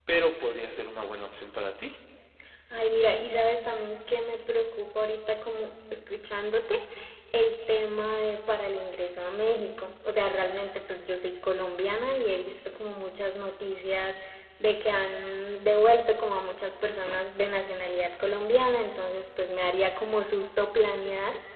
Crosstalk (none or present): none